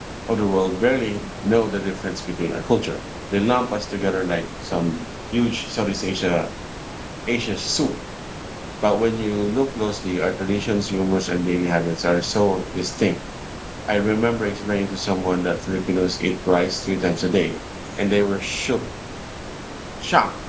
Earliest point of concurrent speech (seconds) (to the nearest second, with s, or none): none